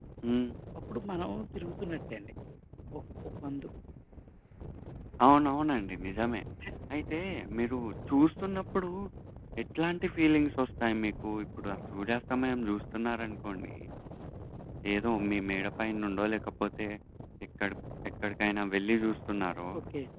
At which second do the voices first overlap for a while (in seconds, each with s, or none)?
none